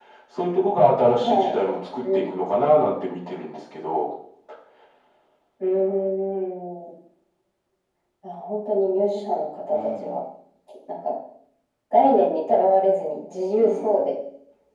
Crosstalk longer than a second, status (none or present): none